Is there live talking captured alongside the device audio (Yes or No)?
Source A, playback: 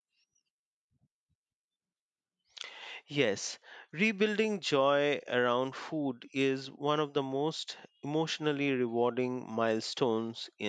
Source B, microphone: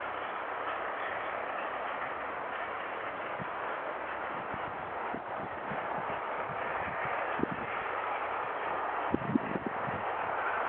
No